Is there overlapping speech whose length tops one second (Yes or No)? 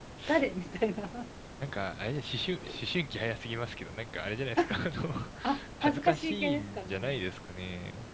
Yes